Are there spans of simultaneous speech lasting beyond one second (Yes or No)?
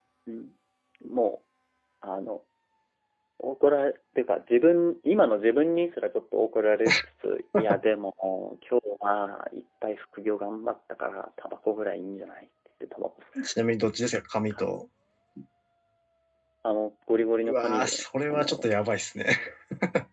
Yes